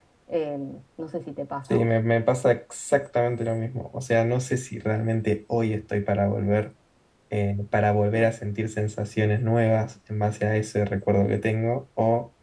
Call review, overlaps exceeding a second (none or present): none